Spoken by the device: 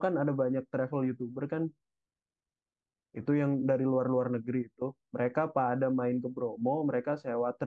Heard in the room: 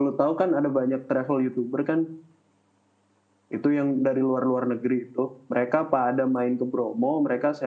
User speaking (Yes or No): No